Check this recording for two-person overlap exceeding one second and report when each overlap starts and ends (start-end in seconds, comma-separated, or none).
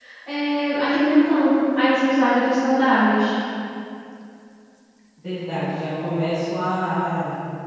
none